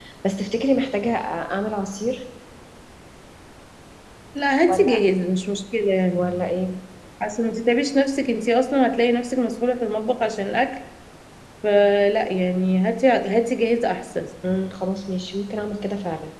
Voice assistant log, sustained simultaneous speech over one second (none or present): none